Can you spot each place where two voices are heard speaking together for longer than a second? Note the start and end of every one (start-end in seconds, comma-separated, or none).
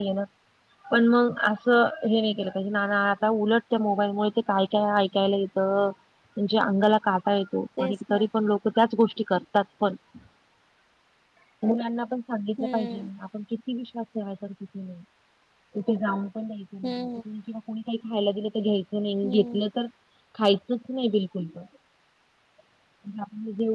none